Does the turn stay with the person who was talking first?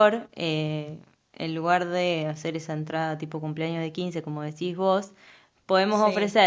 Yes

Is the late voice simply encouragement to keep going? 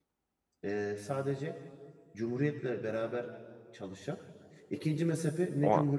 Yes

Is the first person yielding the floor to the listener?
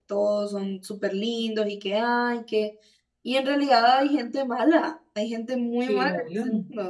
Yes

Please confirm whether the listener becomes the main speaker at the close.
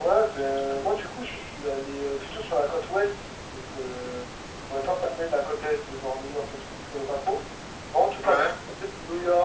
No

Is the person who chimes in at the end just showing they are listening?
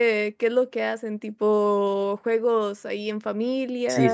No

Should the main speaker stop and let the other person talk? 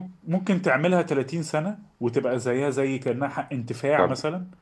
Yes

